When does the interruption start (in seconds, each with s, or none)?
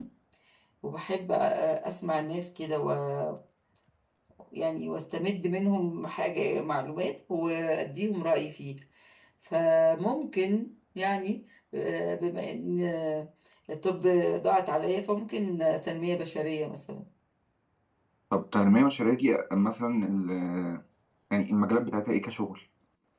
none